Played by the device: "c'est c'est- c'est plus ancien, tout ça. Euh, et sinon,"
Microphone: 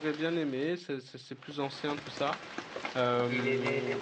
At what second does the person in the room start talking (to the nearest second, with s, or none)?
3 s